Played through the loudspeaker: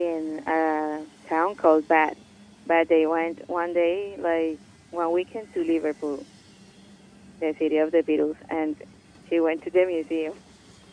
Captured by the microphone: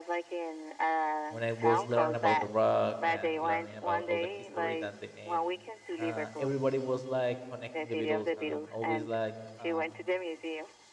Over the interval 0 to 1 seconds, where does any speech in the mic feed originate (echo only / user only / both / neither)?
echo only